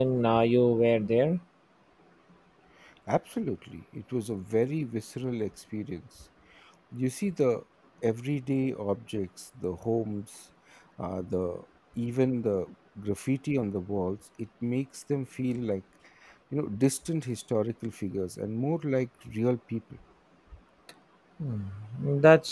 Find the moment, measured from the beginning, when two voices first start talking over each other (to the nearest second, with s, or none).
none